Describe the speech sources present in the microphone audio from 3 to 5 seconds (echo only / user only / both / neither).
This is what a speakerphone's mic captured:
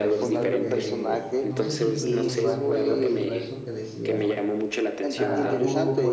both